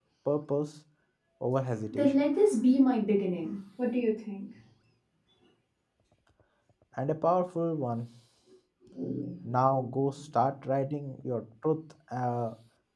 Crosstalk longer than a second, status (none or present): none